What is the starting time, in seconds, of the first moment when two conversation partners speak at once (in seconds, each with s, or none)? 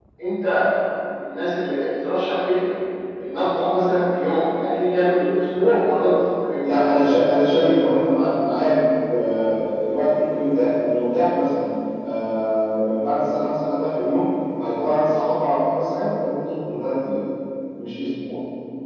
none